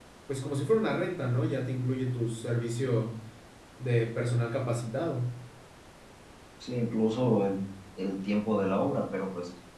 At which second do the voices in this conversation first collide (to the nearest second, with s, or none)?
none